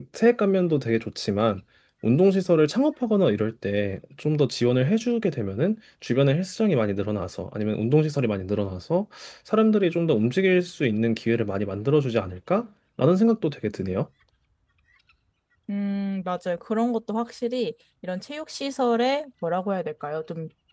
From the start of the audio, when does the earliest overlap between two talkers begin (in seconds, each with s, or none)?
none